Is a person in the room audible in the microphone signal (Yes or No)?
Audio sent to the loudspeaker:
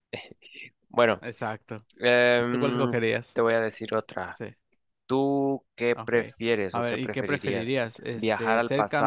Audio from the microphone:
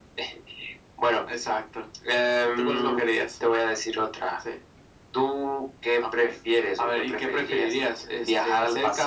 No